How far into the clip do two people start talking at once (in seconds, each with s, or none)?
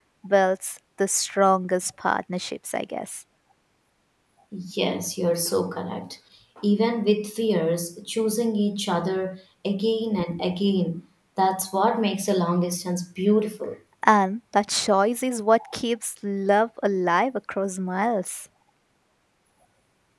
none